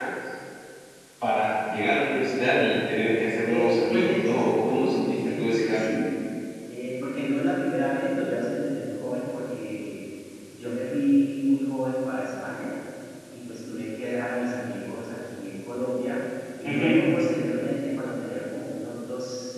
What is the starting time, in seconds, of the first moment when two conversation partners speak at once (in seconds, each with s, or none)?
3.5 s